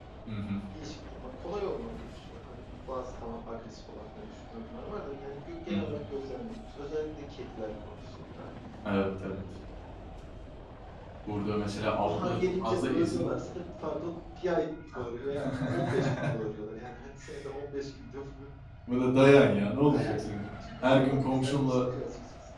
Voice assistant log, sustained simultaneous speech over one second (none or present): present